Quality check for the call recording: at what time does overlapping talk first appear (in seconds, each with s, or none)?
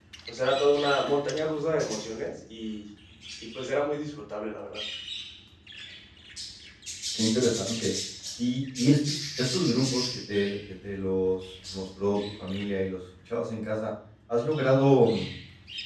none